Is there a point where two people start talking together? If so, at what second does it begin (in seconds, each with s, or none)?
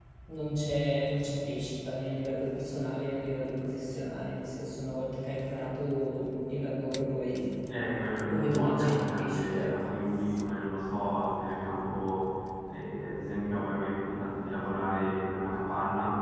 8.3 s